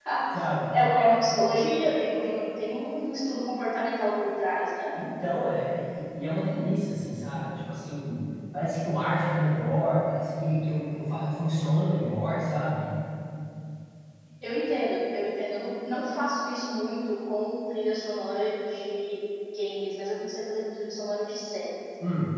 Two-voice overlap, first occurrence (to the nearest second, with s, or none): none